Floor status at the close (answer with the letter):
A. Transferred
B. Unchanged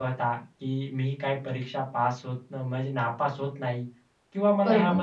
B